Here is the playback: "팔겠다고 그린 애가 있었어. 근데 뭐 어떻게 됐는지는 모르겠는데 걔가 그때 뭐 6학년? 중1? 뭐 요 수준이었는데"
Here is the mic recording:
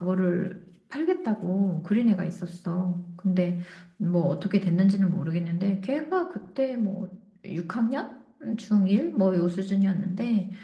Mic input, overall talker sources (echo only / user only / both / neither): echo only